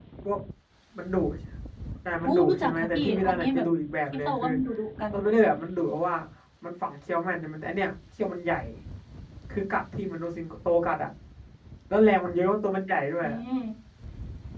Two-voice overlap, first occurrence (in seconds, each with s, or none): 2.2 s